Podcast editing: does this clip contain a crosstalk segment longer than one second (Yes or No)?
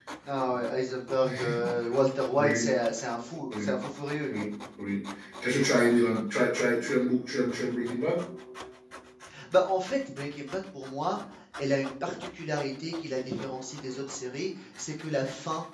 No